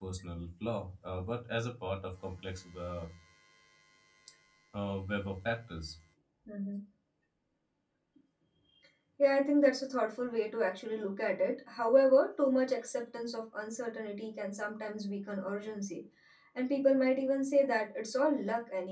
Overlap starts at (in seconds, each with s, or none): none